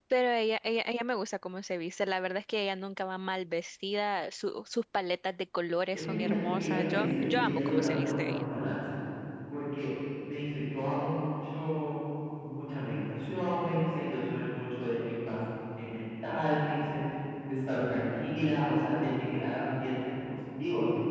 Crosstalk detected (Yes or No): Yes